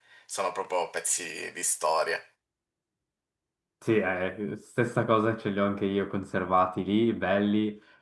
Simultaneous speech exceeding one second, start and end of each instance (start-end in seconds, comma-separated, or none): none